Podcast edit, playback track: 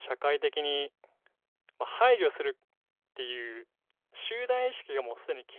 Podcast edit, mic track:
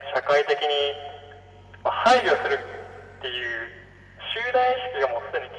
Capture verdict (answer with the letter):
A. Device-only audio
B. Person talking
A